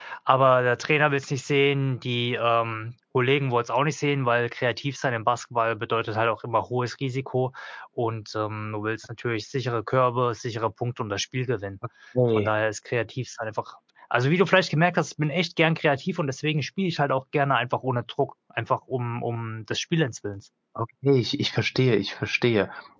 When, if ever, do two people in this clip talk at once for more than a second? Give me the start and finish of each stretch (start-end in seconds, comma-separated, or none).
none